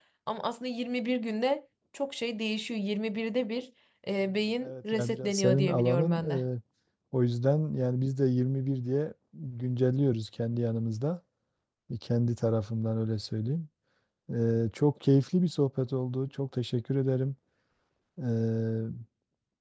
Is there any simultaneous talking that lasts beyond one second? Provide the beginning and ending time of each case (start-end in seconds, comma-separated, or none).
4.6-6.2